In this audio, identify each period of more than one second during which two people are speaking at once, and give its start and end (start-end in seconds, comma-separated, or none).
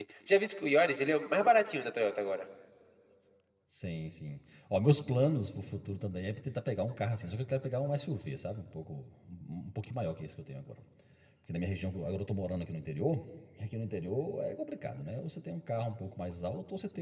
none